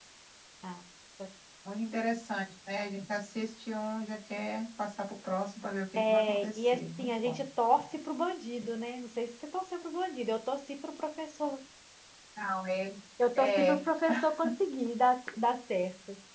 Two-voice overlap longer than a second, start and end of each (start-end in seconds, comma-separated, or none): 6.1-7.4